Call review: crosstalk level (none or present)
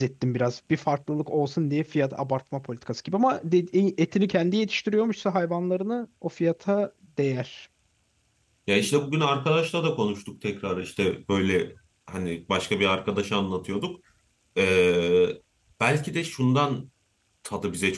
none